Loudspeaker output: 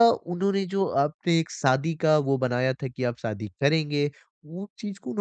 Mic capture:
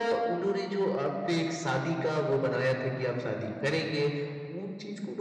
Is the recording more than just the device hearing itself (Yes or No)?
No